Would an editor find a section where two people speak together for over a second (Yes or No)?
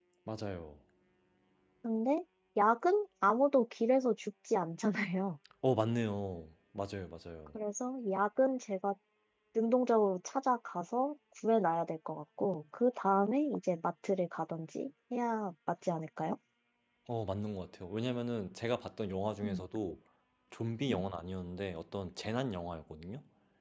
No